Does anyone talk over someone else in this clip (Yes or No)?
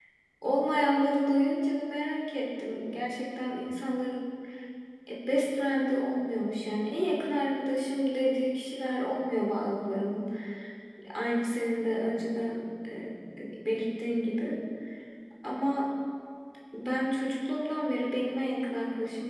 No